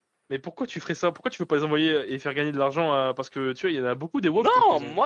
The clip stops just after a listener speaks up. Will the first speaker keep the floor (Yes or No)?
No